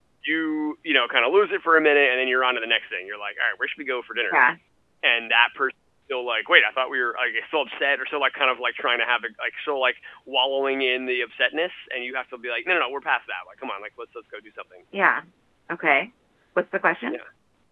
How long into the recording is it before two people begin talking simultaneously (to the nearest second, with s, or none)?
none